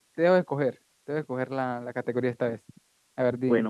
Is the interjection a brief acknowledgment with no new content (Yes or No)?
No